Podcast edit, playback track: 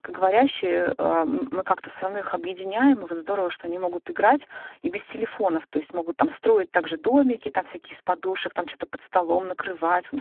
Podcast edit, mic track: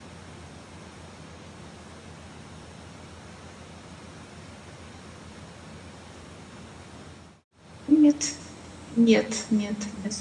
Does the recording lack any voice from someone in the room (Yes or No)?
No